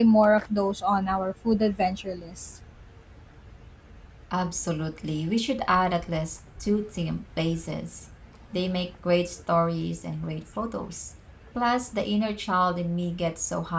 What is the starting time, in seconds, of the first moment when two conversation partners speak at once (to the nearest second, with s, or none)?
none